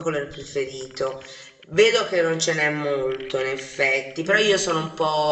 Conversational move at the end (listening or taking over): listening